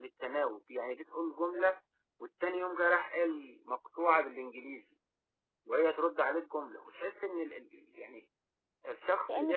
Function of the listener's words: listening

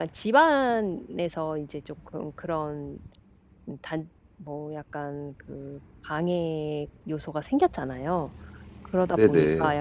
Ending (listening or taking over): listening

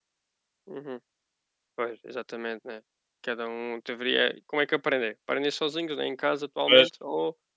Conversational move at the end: listening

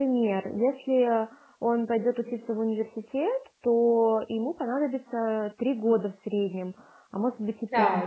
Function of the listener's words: listening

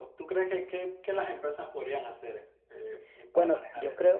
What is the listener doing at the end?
taking over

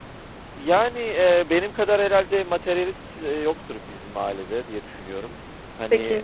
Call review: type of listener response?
taking over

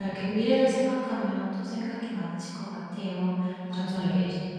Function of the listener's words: listening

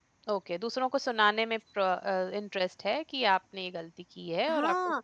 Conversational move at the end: taking over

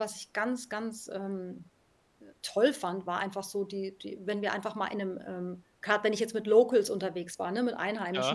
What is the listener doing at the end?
listening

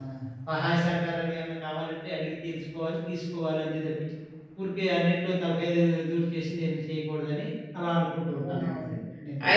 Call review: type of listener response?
taking over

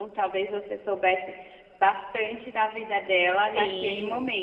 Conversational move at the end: taking over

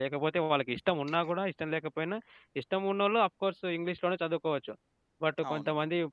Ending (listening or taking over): listening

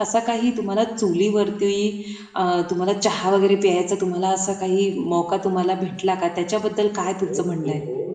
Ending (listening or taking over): taking over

